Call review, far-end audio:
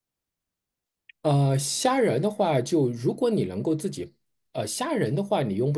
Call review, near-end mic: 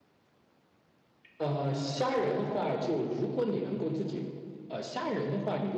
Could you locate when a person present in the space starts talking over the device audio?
none

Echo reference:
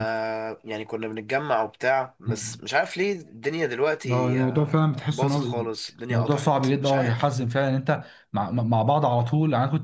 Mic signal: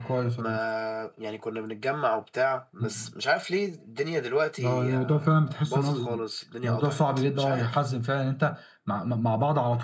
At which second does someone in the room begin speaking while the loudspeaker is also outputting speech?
none

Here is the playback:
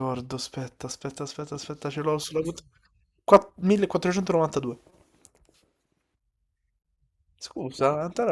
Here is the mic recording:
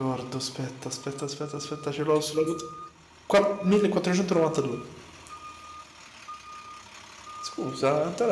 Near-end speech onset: none

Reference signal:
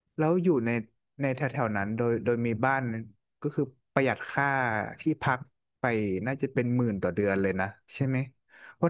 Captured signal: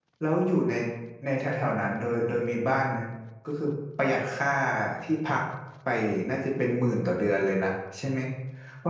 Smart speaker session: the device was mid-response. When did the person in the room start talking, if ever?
none

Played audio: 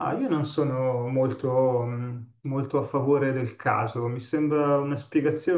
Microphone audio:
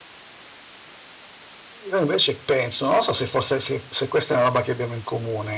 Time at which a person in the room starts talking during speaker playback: 1.9 s

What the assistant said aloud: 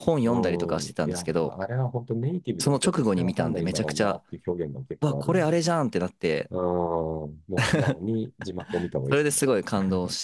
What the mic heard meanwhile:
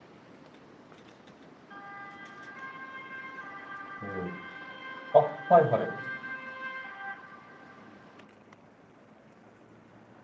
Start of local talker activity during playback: 4.0 s

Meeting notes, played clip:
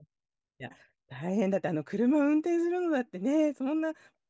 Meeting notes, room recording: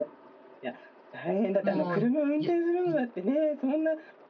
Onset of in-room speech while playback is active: 1.6 s

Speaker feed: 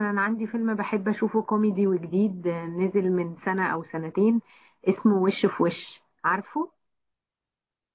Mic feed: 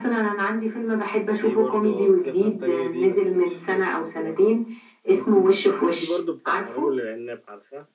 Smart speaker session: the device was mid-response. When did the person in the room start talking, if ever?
1.2 s

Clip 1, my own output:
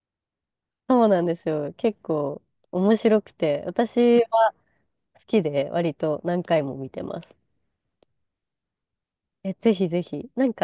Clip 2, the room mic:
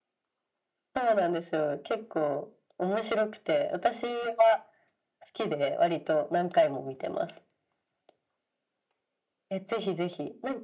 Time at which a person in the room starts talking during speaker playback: none

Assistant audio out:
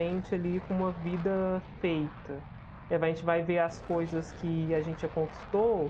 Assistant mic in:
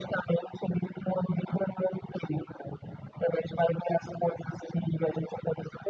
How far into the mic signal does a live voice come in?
none

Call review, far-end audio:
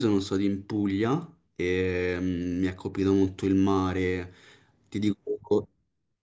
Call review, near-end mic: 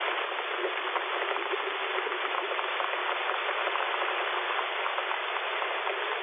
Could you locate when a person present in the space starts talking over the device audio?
none

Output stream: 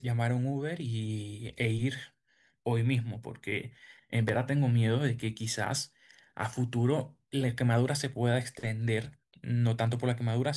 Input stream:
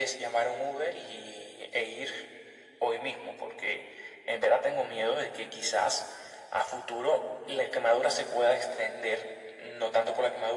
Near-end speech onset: none

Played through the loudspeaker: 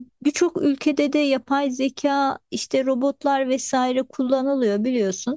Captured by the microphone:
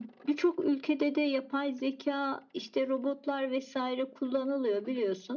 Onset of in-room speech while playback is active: none

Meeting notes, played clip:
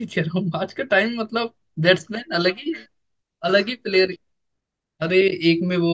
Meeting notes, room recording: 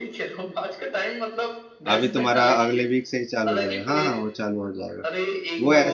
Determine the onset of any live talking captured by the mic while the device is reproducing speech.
1.9 s

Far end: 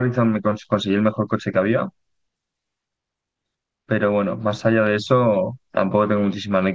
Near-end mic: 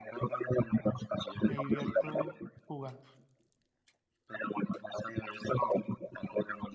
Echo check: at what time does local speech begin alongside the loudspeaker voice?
1.4 s

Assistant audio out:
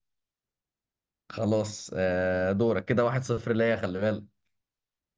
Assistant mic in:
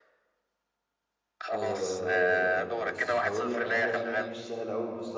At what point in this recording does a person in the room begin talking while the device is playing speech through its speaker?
1.5 s

